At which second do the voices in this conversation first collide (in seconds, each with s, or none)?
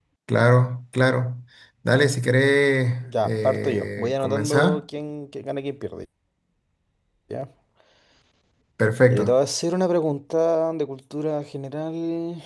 3.0 s